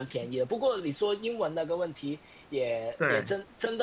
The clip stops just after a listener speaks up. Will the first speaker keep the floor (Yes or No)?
Yes